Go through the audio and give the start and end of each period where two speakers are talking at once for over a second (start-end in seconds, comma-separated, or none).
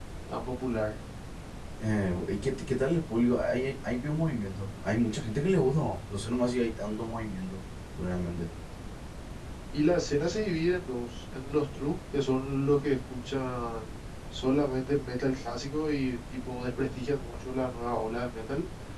none